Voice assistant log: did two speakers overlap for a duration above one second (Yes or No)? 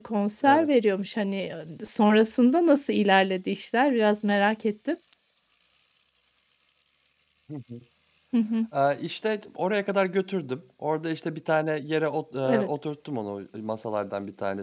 No